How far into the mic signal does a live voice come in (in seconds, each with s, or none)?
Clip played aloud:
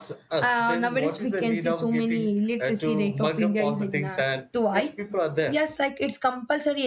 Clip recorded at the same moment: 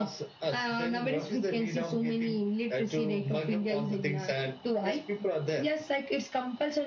none